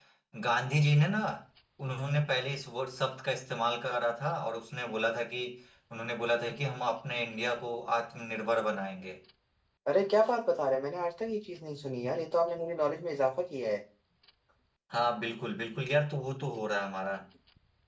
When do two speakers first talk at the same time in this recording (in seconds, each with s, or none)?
none